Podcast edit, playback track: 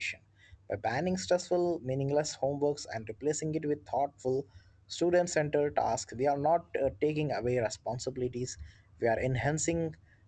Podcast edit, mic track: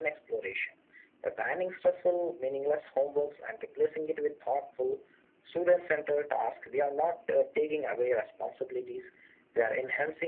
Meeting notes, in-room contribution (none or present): none